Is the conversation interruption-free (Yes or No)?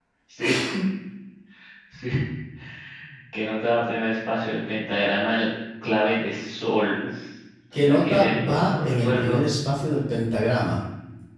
No